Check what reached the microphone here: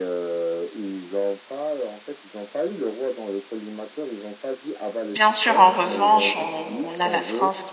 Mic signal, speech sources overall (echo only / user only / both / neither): both